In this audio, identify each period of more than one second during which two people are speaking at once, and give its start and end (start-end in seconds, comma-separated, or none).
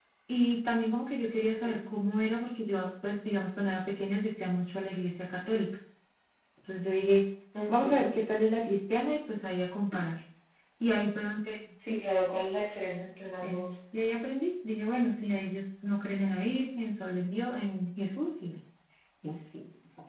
none